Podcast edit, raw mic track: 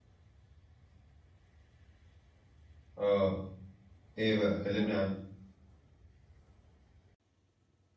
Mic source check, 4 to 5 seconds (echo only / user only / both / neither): user only